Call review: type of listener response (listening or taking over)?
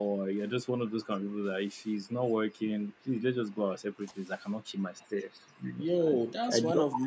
taking over